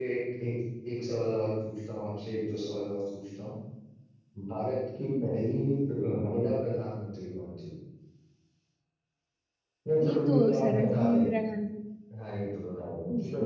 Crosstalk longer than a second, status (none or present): present